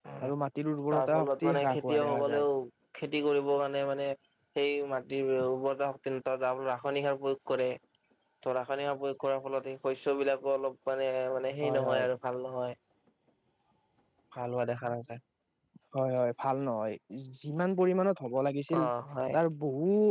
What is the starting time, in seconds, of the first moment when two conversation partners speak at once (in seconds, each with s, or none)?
0.9 s